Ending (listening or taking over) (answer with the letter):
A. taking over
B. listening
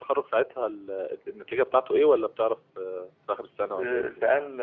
A